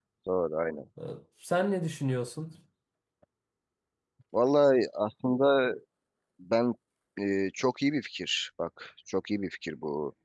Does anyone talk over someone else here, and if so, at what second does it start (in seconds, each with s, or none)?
none